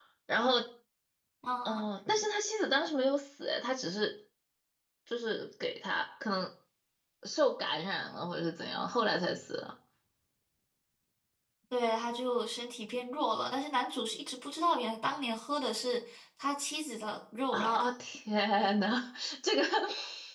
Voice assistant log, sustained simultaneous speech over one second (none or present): none